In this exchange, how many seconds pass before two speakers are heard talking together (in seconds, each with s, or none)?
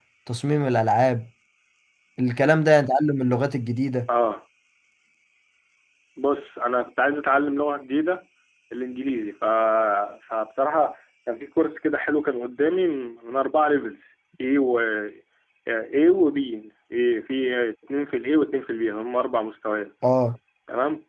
none